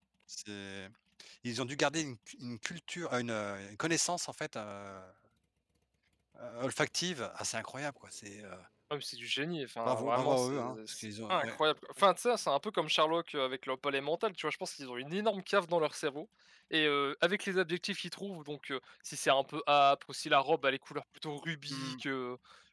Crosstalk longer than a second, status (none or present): present